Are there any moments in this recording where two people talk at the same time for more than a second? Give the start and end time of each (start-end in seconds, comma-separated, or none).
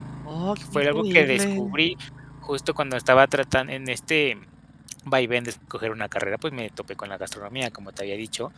0.6-1.8